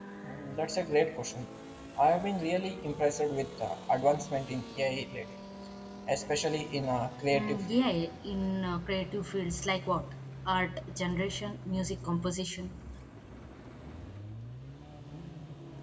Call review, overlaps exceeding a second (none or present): none